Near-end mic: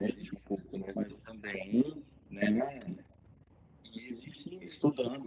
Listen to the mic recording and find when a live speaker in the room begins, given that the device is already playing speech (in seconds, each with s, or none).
none